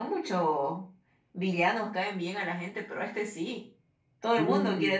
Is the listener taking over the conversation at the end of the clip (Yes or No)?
Yes